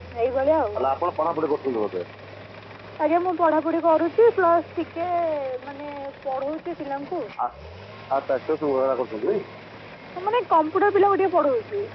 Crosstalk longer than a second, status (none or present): none